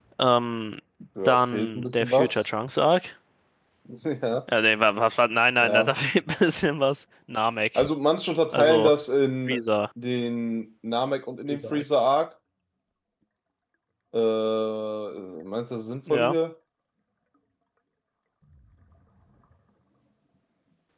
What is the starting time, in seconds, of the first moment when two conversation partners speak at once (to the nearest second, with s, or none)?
1 s